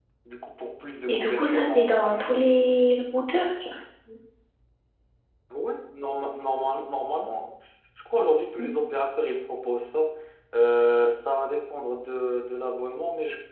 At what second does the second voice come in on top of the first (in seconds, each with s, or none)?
1.1 s